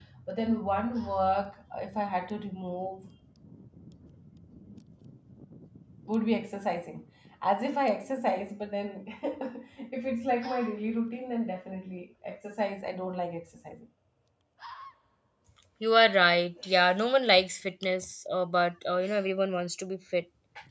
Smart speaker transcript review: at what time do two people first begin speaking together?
none

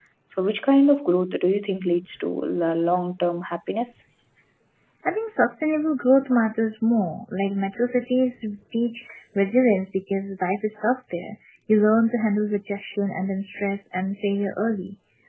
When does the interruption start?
none

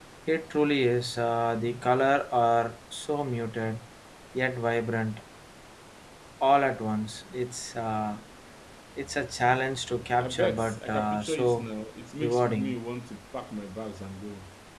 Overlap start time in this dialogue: 10 s

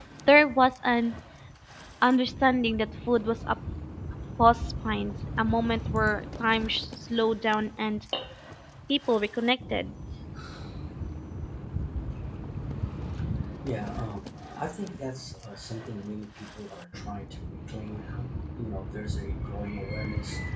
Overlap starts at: none

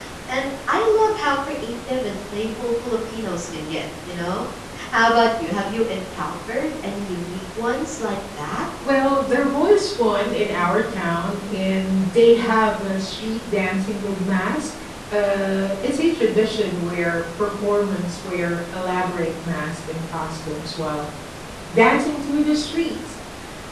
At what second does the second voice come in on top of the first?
none

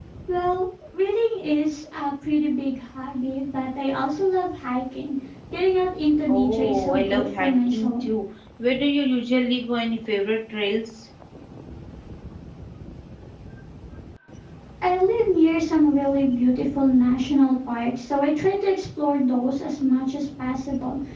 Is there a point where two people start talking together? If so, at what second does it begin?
6 s

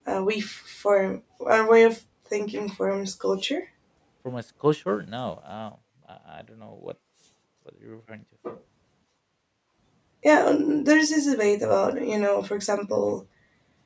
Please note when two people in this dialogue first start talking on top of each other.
none

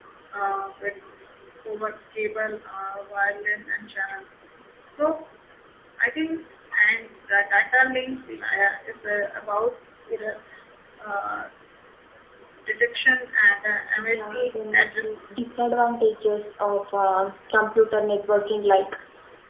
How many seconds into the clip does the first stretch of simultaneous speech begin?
14 s

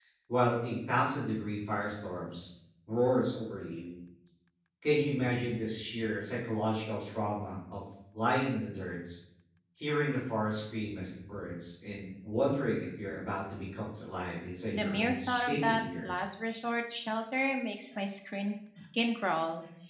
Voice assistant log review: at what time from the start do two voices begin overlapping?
15 s

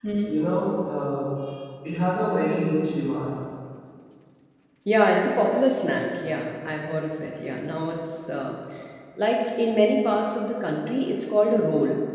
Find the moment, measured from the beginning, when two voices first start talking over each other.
none

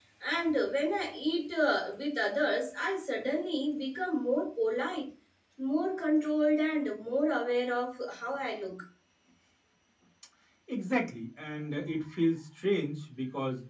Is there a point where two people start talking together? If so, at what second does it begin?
none

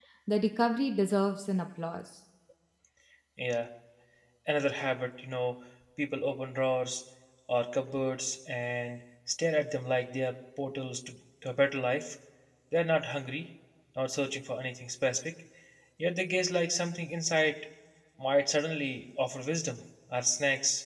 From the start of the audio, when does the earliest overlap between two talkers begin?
none

